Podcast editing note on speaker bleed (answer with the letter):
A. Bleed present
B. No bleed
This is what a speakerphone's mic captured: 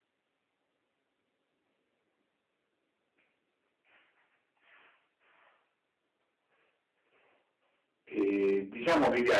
B